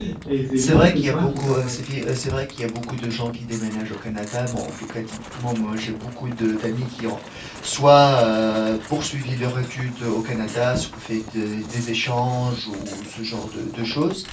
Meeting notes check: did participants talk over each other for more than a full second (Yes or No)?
Yes